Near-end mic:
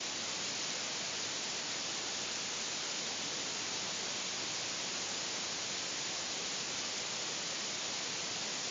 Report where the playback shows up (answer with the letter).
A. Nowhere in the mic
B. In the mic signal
A